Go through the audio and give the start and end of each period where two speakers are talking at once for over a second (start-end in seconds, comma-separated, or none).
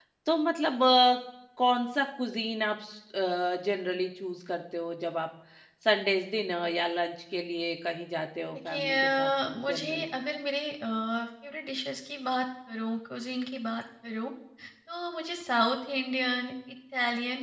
8.5-10.2